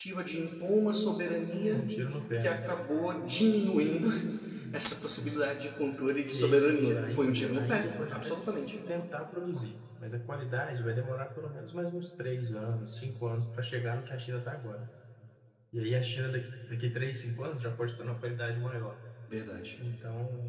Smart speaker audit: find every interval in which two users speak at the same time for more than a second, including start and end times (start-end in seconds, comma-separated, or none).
6.3-8.3